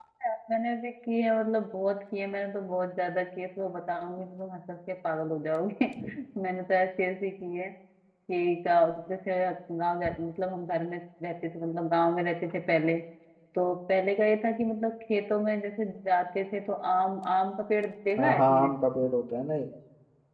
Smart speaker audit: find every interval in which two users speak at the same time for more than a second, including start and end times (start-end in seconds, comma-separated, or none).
none